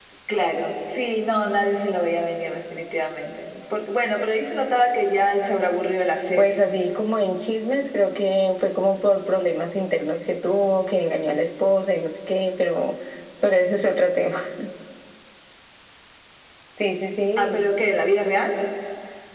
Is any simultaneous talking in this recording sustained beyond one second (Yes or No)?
No